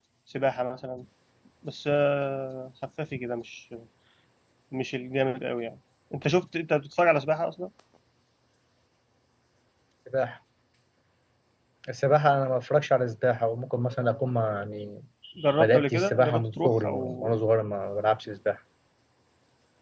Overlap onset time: 16 s

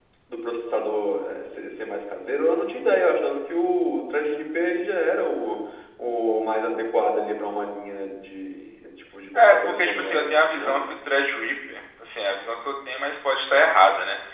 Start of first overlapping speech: 9 s

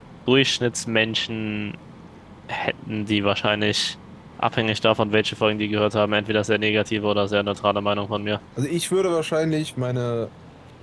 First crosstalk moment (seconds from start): none

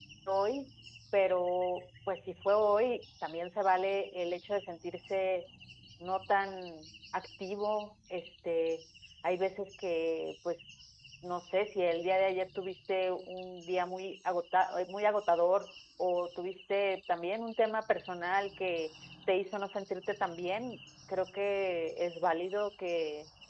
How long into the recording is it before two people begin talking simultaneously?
none

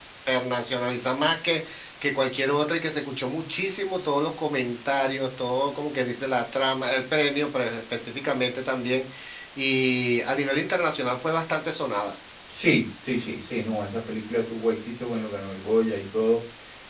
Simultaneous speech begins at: none

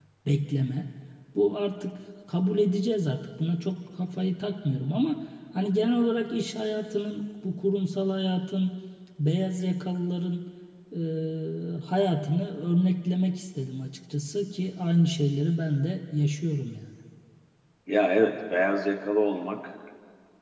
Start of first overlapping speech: none

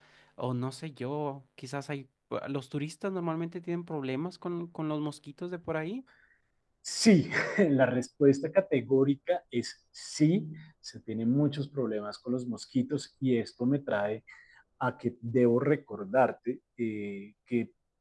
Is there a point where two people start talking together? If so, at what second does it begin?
none

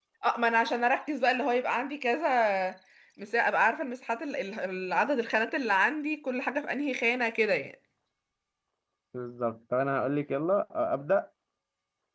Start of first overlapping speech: none

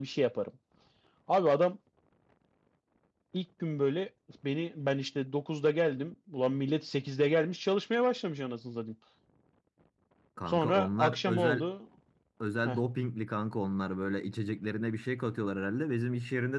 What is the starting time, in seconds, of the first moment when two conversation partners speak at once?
10 s

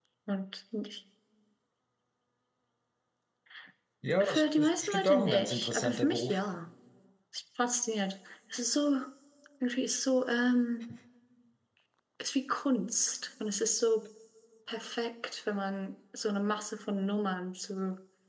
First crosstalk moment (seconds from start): 4 s

